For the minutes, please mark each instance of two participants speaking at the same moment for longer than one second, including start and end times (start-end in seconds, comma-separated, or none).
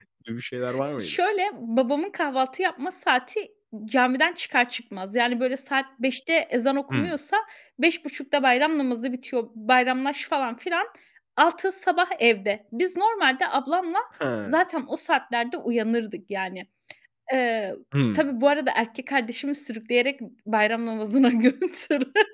none